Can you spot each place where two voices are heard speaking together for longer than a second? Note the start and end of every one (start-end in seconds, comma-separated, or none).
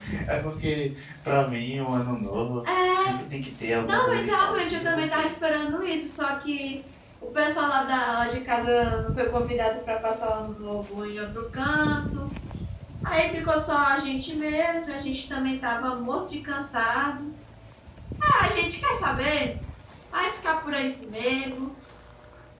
3.8-5.3